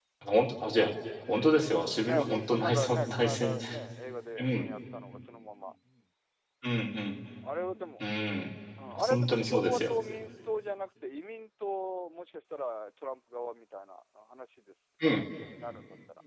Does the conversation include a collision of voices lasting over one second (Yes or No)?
Yes